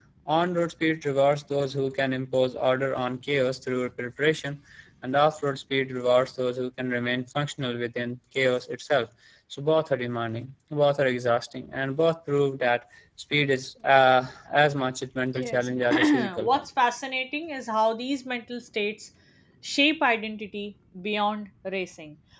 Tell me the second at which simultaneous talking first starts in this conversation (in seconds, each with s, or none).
15.3 s